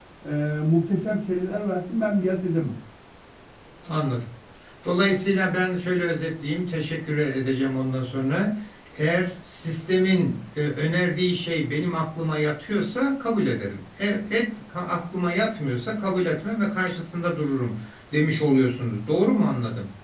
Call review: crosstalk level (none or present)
none